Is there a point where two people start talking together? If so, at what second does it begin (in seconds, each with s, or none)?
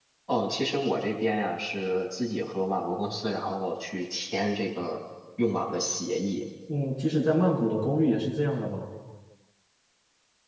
none